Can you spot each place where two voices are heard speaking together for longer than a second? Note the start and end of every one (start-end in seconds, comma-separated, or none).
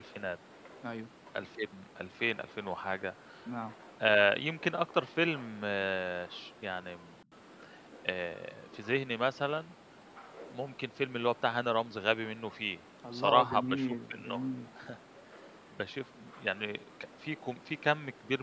13.1-14.4